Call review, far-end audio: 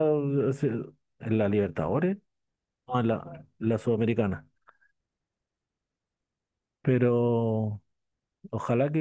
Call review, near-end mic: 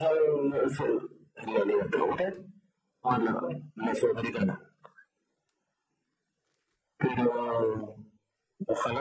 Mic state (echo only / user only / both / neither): echo only